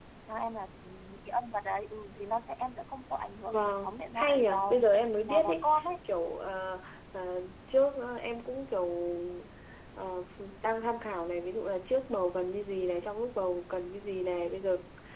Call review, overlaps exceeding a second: present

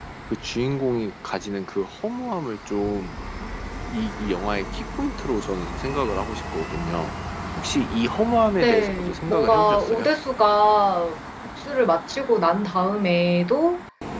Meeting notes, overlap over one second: present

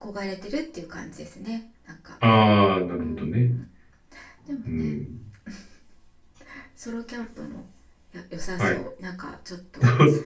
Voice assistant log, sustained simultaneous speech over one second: none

